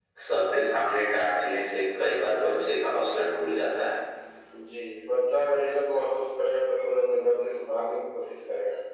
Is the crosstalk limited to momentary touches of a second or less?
Yes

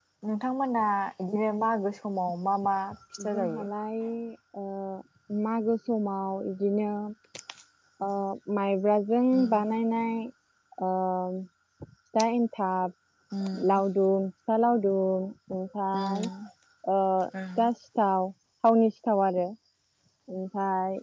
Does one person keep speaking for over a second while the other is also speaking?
No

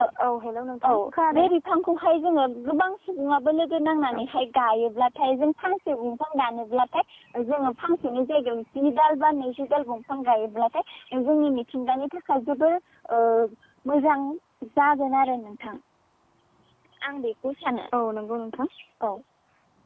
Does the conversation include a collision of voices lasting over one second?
No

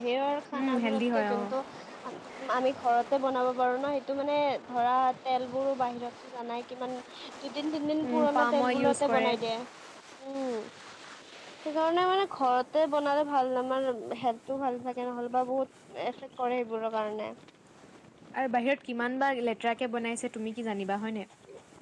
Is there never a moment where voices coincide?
No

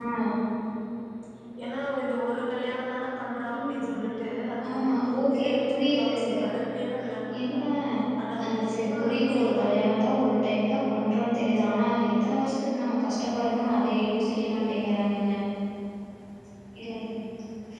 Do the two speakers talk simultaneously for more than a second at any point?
Yes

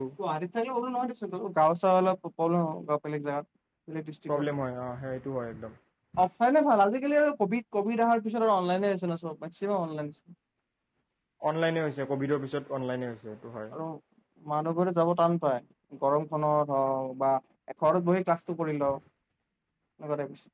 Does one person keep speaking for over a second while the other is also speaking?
No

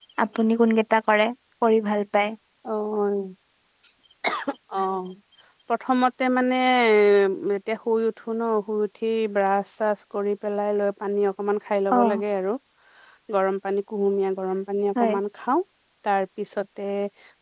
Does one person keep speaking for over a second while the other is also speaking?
No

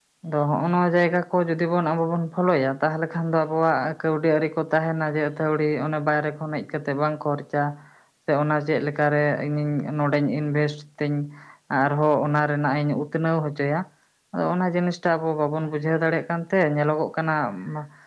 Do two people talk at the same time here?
No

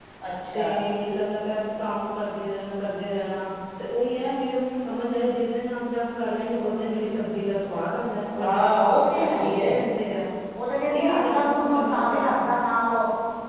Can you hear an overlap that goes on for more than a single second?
Yes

